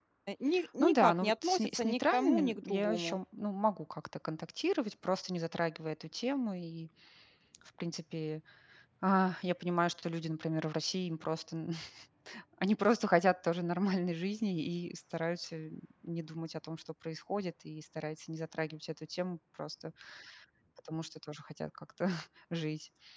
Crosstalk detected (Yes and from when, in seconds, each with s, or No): Yes, from 0.8 s